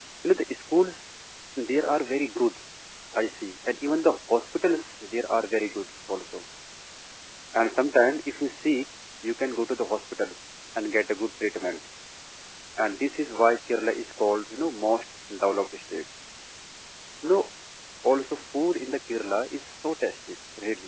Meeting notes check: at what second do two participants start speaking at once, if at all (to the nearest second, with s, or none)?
none